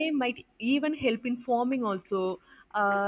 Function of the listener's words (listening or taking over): listening